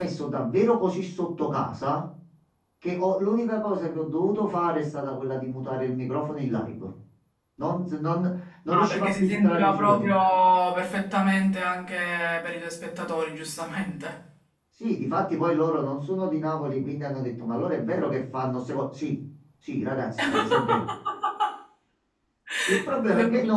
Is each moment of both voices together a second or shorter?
No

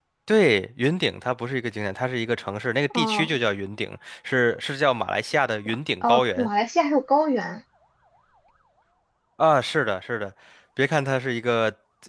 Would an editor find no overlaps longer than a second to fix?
Yes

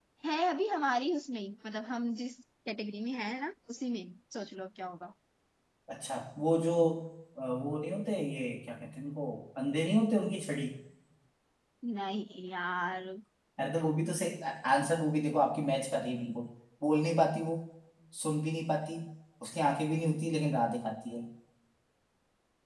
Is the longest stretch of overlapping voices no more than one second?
Yes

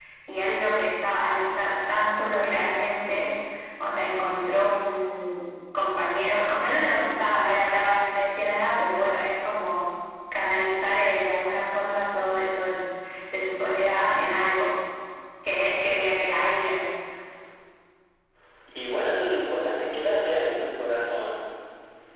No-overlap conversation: Yes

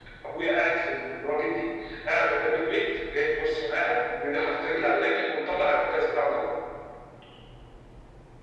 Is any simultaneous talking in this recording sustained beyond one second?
No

